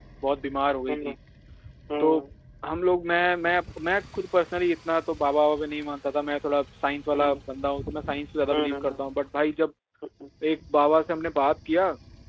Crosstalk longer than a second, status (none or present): none